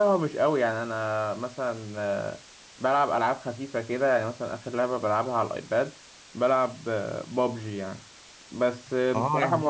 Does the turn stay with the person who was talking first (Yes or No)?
Yes